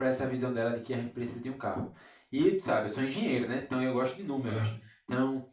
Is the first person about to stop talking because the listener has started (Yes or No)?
No